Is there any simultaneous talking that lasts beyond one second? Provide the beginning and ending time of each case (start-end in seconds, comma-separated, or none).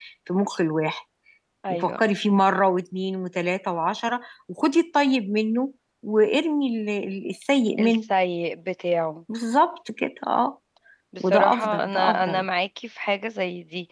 11.2-12.4